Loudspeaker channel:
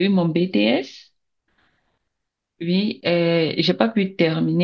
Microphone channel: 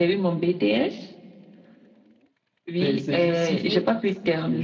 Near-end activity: present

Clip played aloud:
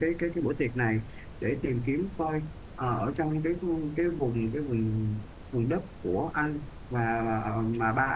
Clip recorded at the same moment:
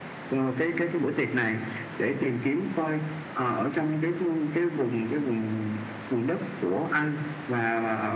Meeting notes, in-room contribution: none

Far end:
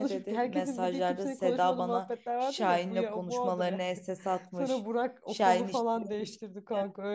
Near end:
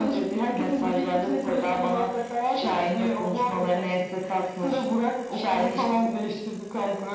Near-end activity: none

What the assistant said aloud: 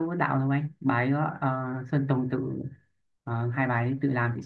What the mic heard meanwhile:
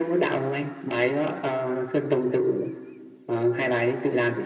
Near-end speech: none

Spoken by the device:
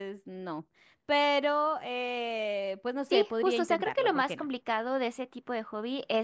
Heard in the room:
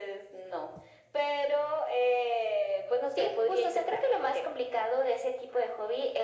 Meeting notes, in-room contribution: none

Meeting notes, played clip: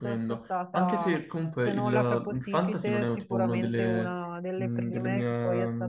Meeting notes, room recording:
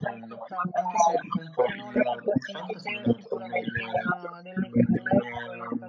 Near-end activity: none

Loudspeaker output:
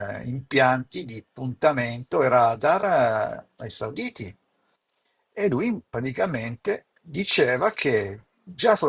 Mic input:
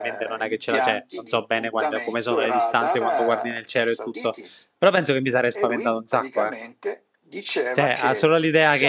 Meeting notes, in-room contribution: present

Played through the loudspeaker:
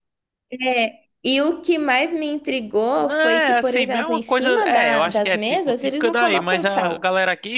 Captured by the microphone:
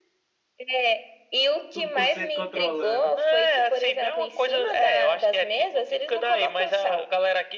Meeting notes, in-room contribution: present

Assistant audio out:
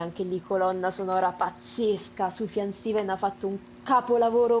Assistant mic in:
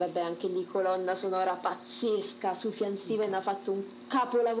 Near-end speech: present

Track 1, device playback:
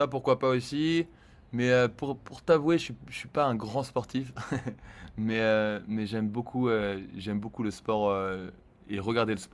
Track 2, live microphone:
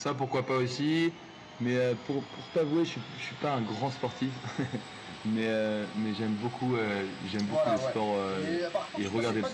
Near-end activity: present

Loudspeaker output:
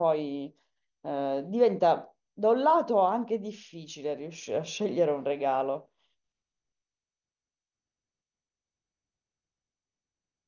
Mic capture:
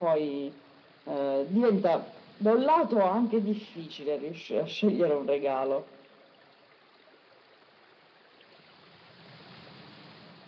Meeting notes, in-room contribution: none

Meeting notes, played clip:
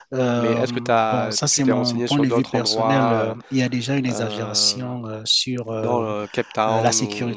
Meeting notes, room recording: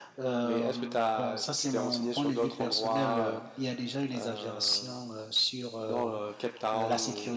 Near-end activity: none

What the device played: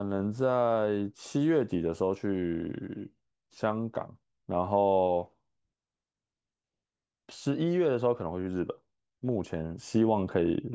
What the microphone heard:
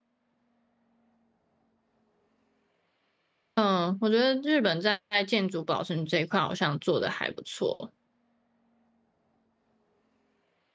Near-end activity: present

